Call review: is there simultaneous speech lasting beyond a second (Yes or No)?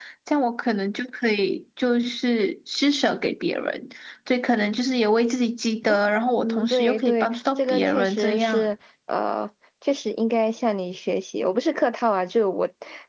Yes